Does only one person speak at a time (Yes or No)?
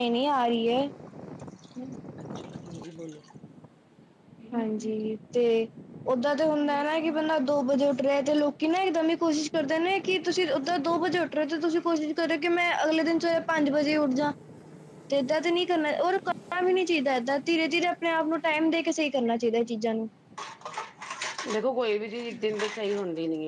Yes